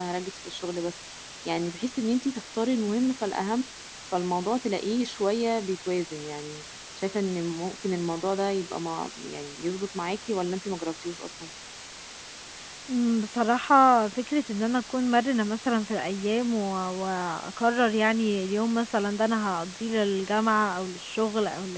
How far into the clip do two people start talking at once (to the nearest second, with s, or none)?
none